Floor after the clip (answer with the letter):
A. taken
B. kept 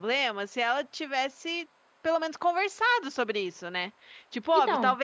B